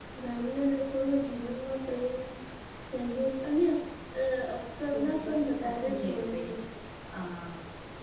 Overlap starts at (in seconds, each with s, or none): 5.0 s